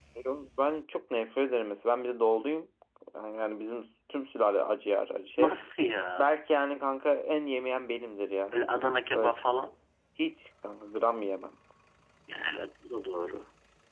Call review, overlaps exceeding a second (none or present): none